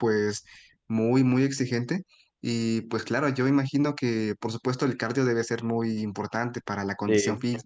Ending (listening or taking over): listening